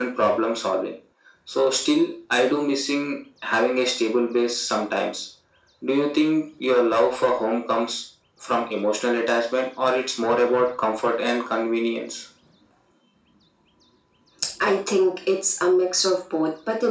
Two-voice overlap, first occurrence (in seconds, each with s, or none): none